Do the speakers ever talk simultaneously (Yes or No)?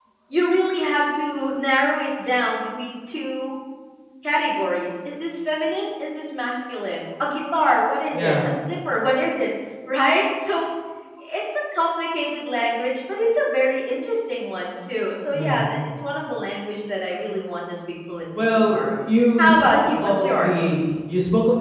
Yes